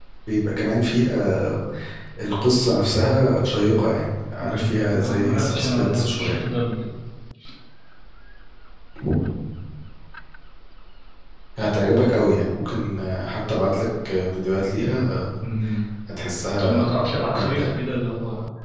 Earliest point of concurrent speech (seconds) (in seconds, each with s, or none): 4.4 s